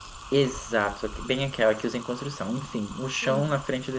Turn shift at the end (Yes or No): No